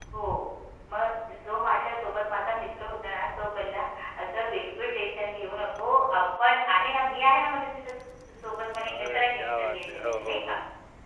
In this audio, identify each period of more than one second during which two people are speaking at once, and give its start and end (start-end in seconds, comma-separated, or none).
8.9-10.6